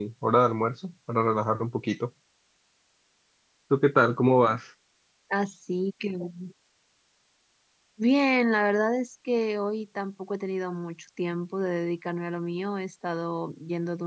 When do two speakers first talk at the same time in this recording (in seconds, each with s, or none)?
none